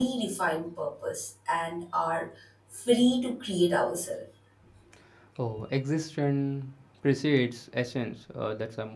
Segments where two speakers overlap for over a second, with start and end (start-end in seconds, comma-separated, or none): none